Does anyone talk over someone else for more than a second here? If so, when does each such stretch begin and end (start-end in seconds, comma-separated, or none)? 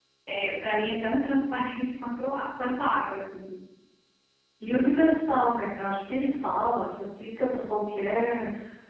none